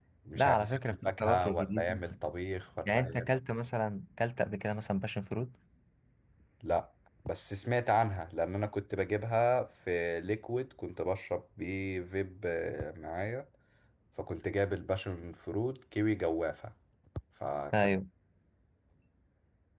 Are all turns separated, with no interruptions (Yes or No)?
No